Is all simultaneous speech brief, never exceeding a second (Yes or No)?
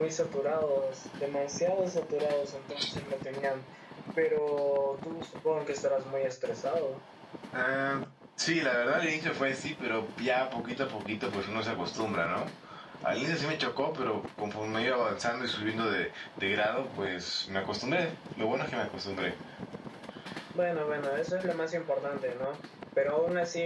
Yes